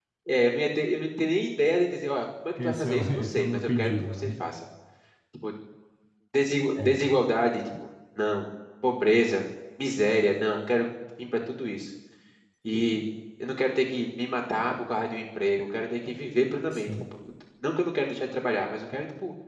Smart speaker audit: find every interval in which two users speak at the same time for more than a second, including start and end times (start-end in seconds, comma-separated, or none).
2.6-4.3